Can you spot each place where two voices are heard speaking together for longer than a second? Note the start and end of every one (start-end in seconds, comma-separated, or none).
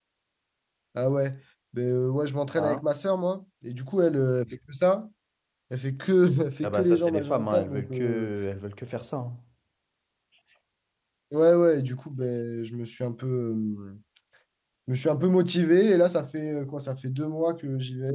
6.6-8.3